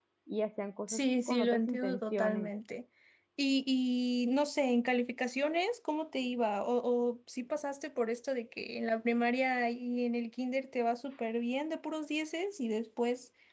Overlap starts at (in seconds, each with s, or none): 0.9 s